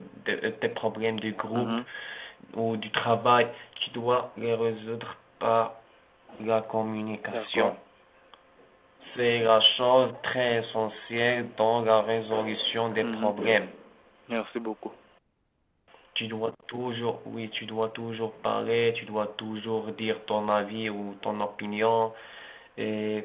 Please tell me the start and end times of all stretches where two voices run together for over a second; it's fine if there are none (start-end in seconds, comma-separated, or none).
none